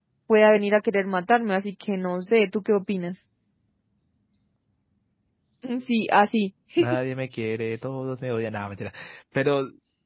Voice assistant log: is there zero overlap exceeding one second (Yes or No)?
Yes